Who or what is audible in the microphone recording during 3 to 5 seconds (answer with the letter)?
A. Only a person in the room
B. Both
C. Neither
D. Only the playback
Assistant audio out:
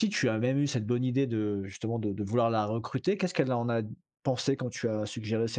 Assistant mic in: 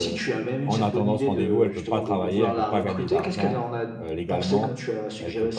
B